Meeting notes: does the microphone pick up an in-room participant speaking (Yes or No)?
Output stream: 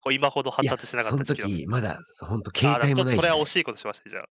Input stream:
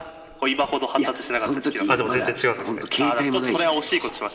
Yes